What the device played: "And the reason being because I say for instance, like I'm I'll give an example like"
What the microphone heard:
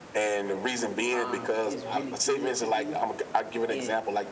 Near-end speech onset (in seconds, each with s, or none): 1.1 s